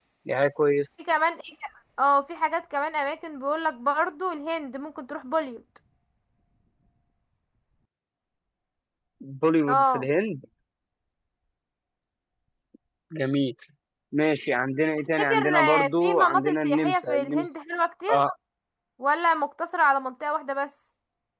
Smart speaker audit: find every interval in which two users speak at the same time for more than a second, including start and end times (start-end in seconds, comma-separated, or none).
15.2-17.5